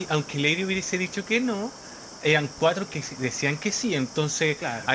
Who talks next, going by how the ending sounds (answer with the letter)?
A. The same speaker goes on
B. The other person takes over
A